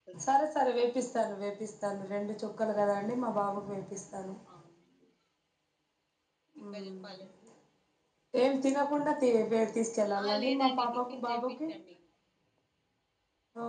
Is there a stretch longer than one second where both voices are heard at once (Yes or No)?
Yes